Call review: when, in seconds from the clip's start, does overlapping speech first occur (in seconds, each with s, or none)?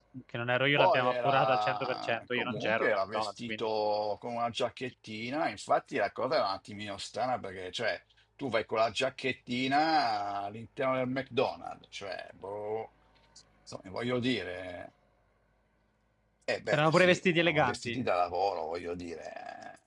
0.8 s